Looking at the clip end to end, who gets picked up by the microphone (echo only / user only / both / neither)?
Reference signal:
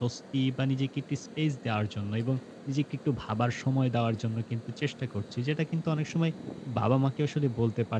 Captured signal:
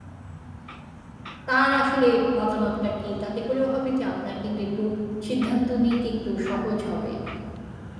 user only